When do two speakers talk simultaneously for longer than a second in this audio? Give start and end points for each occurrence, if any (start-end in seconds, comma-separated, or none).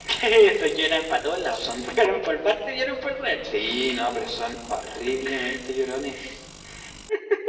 none